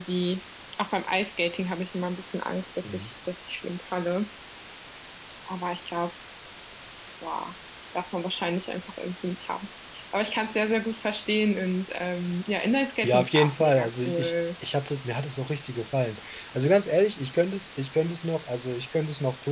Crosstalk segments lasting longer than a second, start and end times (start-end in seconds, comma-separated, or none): 13.0-14.3